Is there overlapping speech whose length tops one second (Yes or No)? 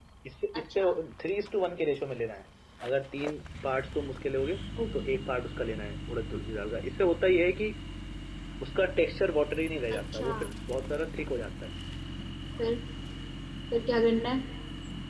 No